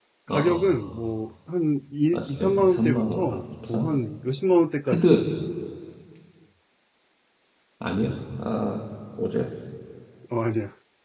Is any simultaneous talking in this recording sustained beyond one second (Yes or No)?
Yes